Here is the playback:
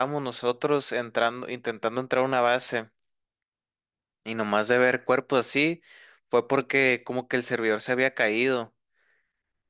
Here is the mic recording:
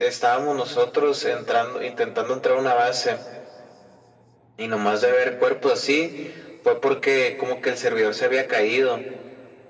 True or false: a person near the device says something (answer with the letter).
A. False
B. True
A